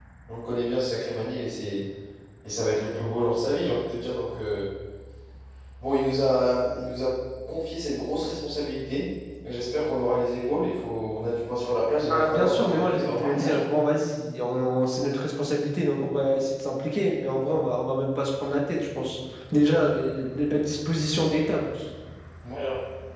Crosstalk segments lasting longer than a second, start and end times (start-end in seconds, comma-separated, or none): 12.1-13.6